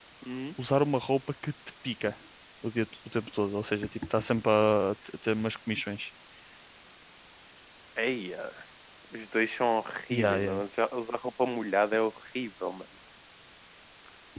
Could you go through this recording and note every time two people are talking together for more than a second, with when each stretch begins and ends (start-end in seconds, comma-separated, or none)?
none